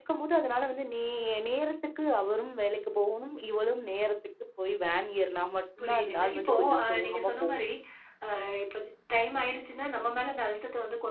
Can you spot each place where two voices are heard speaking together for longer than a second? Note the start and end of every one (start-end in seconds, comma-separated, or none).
5.8-7.6